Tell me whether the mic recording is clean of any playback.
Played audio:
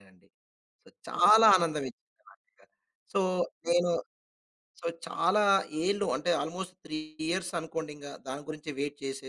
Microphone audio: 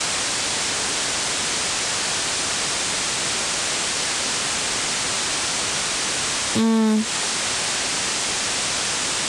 Yes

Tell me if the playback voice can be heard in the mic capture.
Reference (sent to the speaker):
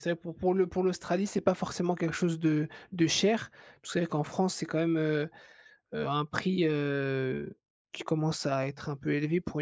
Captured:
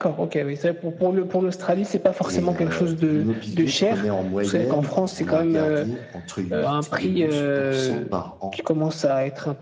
Yes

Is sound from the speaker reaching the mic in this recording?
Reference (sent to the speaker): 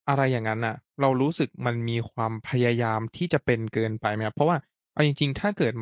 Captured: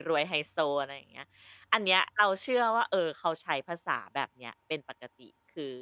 No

